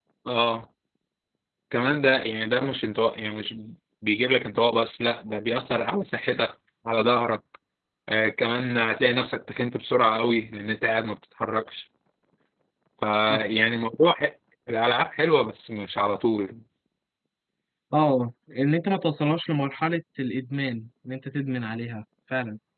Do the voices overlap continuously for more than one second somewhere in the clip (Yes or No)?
No